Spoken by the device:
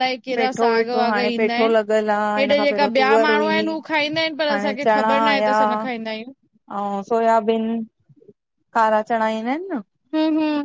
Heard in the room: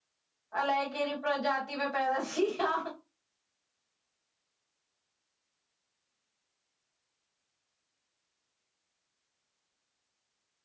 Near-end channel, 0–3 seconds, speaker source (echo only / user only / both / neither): user only